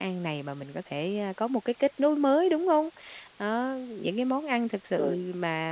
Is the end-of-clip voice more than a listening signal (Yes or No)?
No